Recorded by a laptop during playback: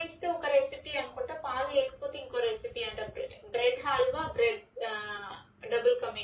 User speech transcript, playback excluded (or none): none